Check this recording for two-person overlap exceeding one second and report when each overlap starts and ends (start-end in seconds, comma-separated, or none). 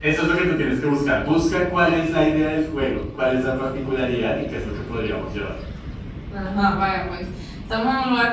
none